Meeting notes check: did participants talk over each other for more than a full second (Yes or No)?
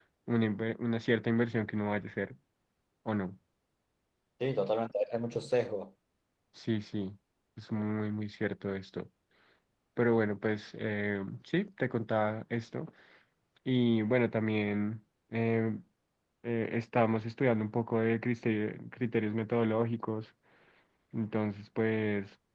No